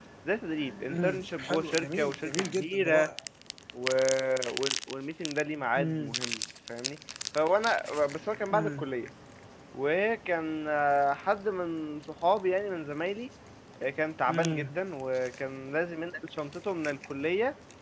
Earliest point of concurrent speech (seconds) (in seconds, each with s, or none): 0.9 s